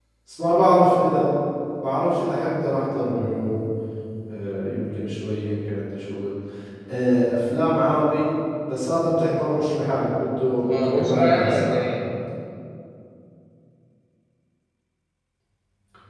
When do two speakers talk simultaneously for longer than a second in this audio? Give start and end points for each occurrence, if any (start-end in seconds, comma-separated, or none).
10.6-11.9